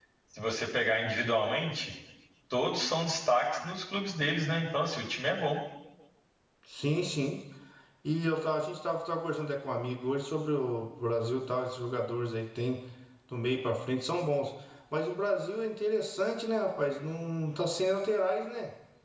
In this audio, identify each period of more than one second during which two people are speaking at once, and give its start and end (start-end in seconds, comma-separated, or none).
none